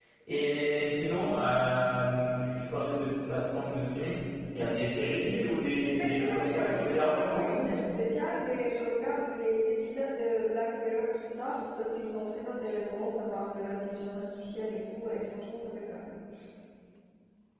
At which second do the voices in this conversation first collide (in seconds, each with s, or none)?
6.0 s